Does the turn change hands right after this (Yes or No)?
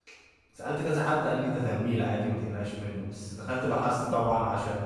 No